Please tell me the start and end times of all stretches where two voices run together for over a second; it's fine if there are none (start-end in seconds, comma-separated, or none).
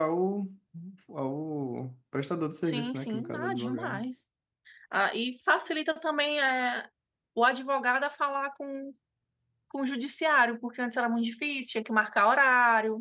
2.6-4.0